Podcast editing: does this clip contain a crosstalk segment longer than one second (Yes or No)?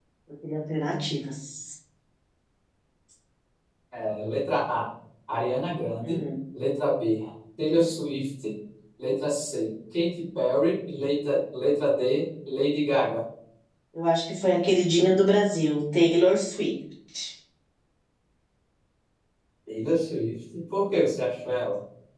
No